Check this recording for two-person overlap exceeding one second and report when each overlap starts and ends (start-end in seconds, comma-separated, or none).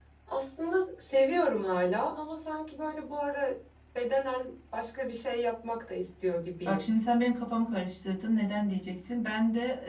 none